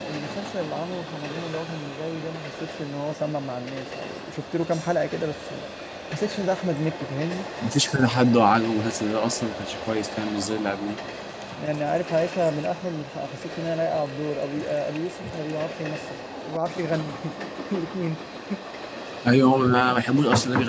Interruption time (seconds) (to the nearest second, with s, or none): none